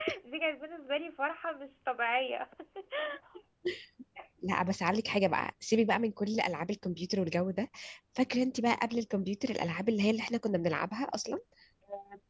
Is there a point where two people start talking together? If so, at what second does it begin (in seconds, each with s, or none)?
none